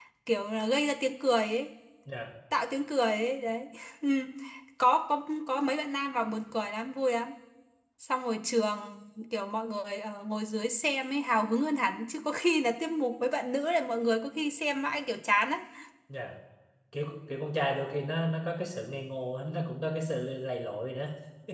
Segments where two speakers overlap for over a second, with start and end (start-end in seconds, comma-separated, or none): none